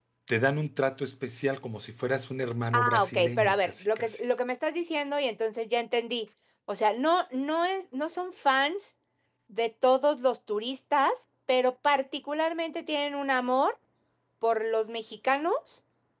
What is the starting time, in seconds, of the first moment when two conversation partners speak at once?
2.7 s

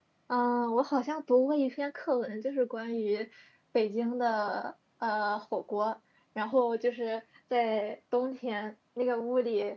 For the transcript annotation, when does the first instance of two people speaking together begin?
none

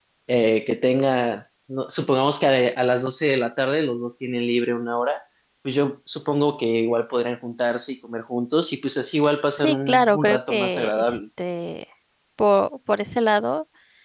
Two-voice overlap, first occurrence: 9.6 s

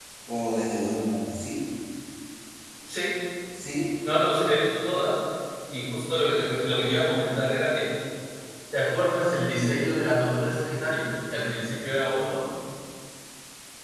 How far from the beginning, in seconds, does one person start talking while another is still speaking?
none

